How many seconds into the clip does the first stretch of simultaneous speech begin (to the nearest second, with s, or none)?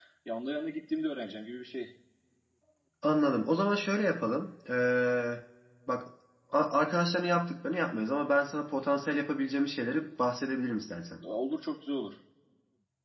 none